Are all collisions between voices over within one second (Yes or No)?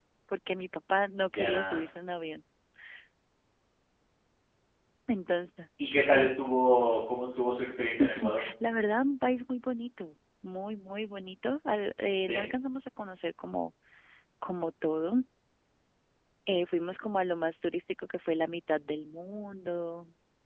Yes